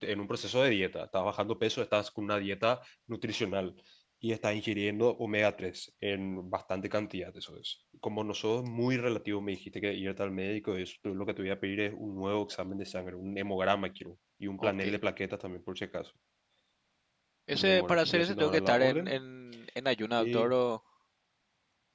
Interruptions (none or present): present